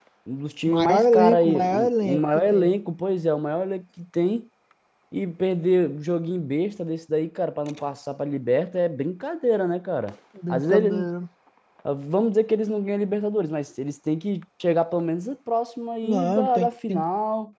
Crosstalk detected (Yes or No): Yes